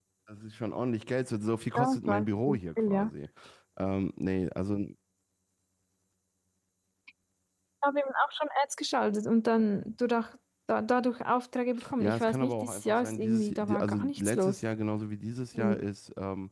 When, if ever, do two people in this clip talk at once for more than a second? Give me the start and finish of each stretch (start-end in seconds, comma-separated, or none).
1.8-3.1, 12.0-14.6